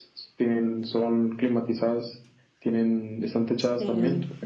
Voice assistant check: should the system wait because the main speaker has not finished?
No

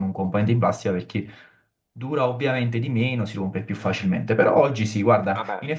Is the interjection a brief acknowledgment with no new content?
Yes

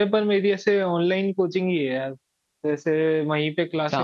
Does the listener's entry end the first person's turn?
No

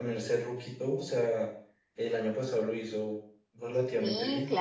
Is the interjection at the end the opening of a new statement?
Yes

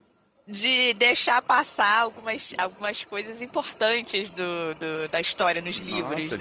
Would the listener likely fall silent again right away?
No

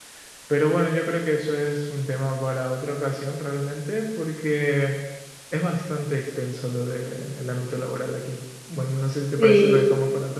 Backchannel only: No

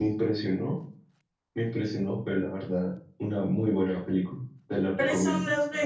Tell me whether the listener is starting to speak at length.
Yes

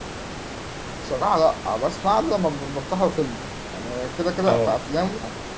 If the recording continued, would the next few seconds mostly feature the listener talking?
No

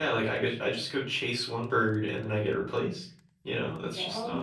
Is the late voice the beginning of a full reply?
No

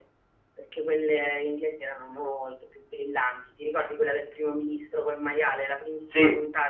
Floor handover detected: No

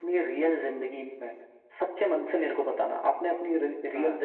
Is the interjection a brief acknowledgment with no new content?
Yes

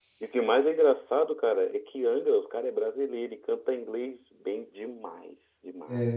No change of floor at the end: No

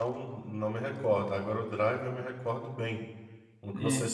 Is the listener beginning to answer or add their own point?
No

